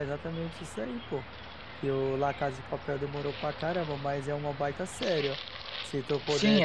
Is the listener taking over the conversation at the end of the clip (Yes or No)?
Yes